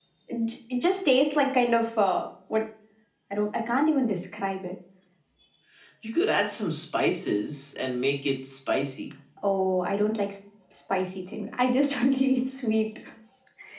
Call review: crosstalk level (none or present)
none